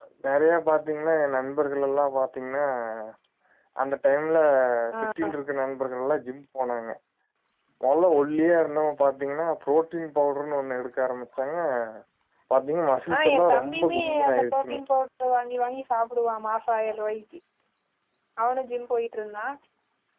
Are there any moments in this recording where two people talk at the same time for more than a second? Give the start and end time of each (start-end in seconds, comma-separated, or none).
13.2-14.8